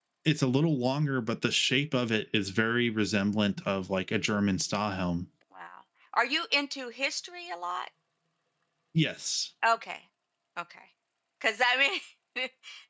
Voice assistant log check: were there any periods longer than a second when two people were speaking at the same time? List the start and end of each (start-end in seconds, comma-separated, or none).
none